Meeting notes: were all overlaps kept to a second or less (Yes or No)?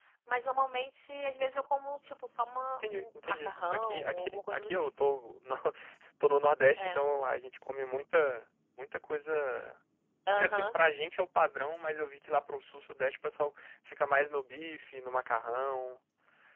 No